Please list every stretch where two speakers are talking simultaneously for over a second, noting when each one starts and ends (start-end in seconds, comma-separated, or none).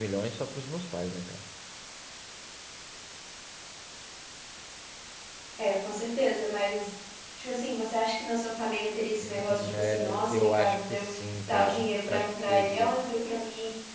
9.2-11.1, 11.5-12.9